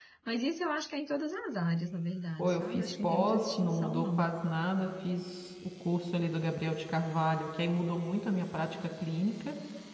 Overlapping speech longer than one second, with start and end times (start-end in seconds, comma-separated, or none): 2.4-4.3